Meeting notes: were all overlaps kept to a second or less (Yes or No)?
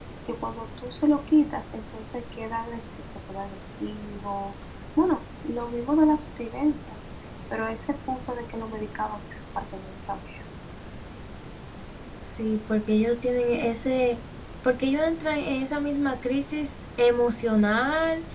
Yes